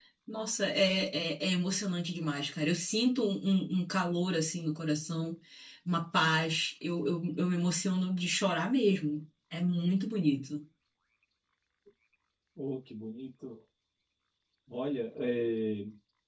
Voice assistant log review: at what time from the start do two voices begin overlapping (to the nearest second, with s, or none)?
none